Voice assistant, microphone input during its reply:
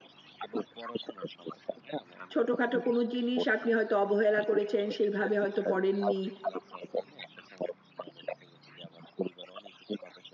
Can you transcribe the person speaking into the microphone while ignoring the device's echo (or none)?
ছোটখাটো কোনো জিনিস আপনি হয়তো অবহেলা করেছেন, সেইভাবে হয়তো পড়েননি।